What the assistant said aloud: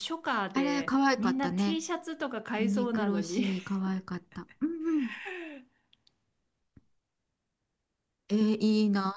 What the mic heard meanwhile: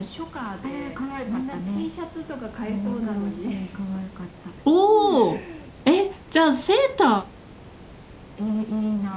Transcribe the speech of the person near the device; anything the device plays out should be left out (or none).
おー。え、じゃあセータ